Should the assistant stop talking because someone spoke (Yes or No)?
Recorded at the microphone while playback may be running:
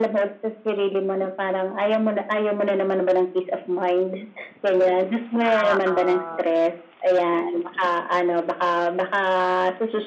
Yes